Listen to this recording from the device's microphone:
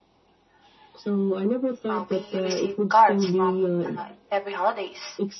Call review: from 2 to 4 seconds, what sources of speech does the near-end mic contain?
both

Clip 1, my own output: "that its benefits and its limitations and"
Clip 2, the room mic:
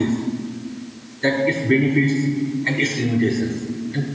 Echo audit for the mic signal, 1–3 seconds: echo only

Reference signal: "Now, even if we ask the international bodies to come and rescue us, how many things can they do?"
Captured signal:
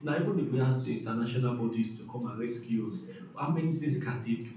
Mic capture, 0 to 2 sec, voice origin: echo only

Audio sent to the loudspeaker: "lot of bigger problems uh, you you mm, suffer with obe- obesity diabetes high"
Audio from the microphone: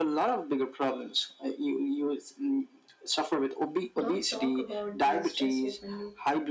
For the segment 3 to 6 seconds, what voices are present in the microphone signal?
both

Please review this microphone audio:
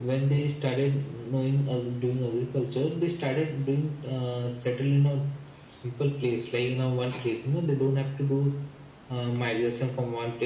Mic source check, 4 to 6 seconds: echo only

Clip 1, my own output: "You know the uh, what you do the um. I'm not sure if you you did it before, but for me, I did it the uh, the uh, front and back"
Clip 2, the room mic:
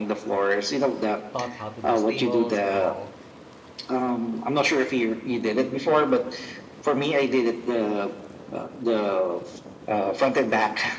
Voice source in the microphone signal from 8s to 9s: echo only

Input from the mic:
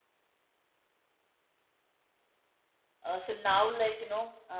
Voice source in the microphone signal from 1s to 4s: user only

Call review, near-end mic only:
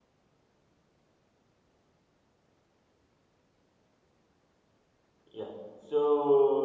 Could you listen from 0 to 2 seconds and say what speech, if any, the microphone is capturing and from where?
neither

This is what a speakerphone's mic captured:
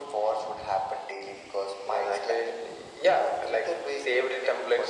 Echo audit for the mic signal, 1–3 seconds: echo only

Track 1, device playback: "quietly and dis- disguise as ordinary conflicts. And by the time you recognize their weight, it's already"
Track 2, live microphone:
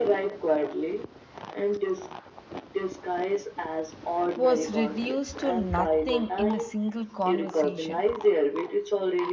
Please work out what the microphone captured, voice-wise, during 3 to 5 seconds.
both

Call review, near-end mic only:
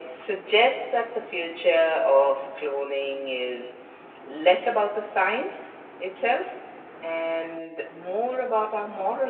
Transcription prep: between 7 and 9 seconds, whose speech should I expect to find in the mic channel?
echo only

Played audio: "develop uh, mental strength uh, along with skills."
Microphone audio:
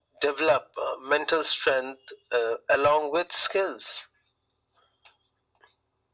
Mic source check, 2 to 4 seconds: echo only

